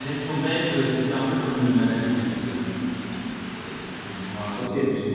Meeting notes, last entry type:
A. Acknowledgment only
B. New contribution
B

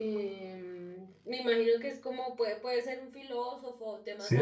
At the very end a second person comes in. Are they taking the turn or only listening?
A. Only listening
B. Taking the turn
B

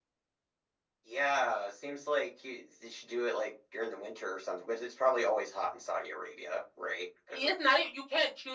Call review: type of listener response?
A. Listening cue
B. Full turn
B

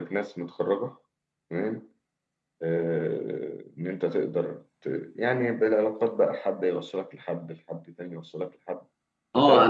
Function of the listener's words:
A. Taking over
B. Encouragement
A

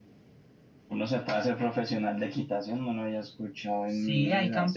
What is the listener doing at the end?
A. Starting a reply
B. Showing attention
A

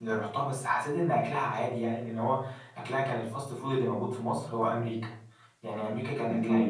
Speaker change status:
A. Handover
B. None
B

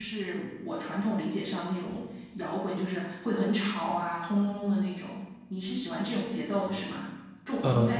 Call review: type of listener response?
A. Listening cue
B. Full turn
A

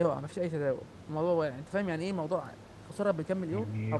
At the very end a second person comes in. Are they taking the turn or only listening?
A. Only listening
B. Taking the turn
B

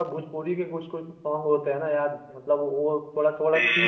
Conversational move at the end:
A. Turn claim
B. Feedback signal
B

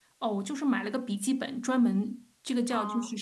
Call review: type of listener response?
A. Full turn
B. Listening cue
B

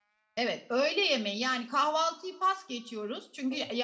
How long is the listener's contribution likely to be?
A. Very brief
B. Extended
A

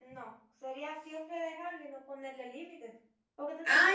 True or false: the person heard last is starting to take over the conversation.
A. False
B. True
B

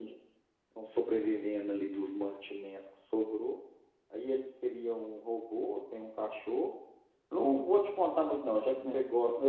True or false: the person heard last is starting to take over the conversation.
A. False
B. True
A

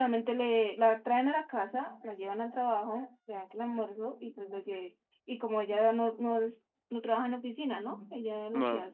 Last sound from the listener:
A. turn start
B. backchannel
B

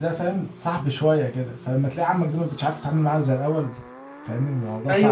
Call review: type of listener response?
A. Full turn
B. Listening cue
A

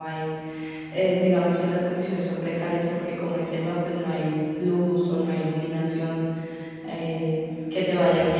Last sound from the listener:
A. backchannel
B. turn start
A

